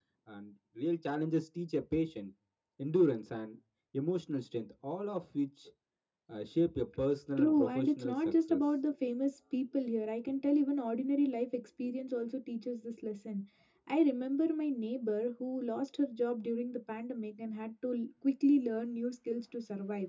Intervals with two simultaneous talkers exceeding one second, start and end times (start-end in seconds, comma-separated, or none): 7.4-8.6